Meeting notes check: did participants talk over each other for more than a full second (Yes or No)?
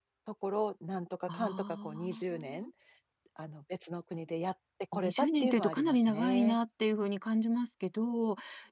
Yes